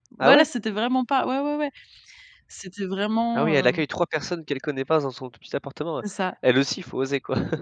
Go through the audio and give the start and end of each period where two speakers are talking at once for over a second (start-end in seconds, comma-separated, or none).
none